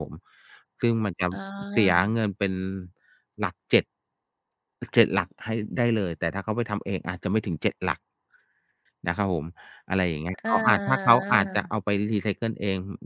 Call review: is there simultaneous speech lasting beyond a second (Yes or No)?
Yes